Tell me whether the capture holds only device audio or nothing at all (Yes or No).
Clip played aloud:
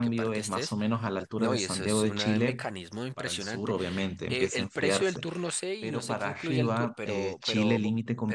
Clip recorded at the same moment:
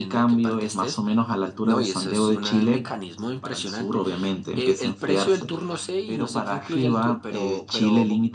Yes